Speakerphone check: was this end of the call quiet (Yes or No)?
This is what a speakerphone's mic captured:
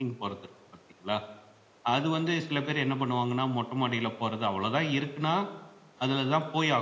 No